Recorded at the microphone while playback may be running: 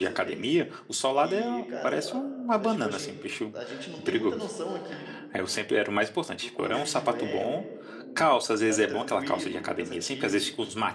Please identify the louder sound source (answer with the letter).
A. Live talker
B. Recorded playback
A